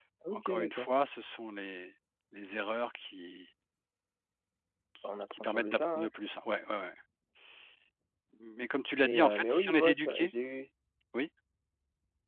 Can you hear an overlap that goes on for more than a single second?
Yes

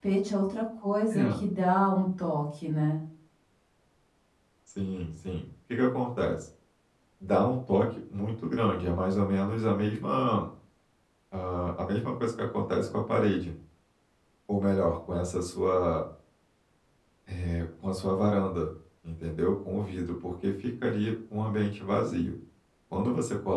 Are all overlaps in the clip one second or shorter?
Yes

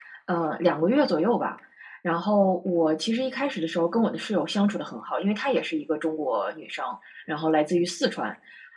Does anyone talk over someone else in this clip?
No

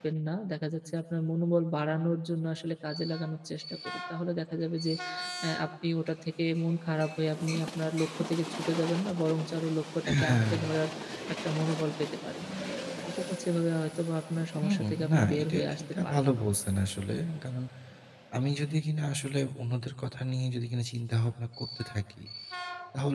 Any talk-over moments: Yes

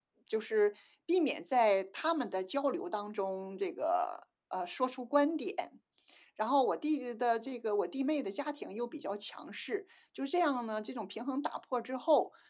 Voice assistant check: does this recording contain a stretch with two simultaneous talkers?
No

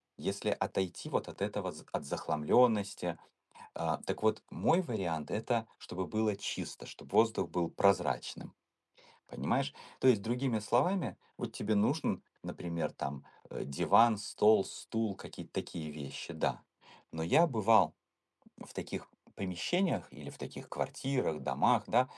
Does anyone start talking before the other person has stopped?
No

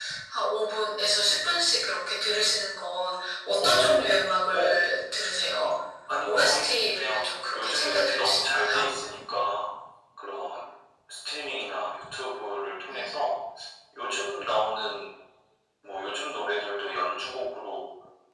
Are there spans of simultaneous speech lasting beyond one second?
Yes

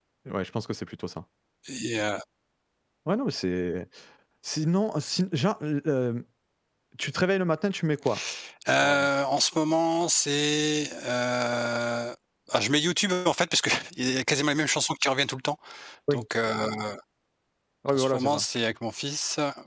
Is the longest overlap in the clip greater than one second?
No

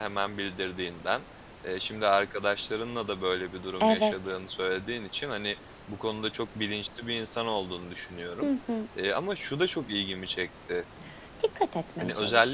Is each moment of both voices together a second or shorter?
Yes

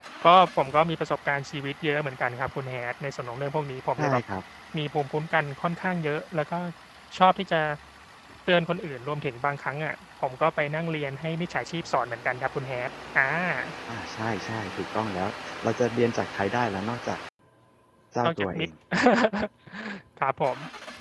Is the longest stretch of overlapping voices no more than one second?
Yes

